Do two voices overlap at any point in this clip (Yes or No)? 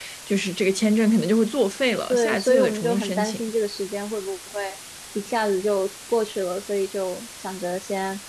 Yes